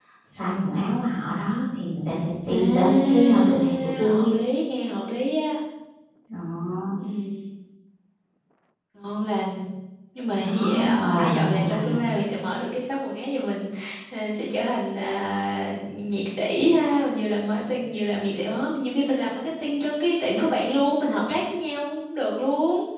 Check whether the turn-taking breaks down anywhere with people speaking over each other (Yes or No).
Yes